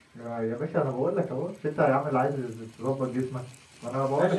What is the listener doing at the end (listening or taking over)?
taking over